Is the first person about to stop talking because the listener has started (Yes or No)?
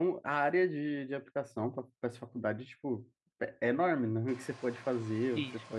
Yes